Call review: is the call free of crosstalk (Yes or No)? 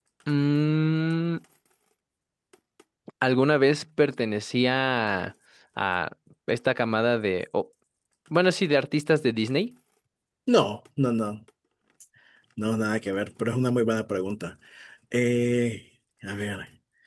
Yes